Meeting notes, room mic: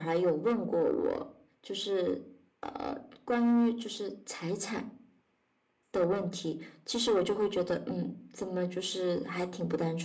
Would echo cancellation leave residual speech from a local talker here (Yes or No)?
No